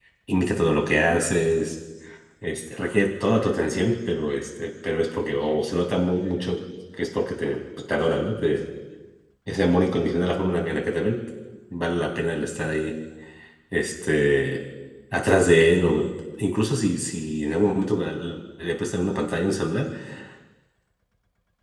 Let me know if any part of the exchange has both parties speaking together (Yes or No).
No